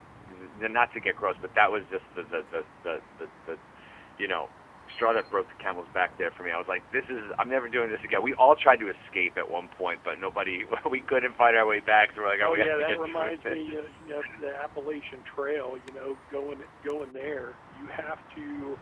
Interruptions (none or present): present